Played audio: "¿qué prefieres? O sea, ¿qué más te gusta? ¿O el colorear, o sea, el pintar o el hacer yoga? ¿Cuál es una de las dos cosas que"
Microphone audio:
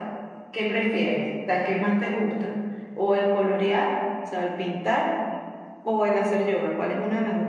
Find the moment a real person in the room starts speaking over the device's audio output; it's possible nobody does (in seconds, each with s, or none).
none